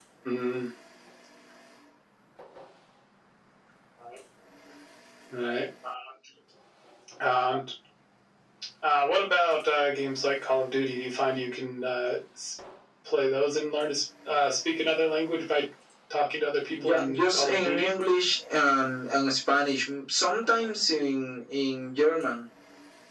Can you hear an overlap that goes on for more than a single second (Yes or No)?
Yes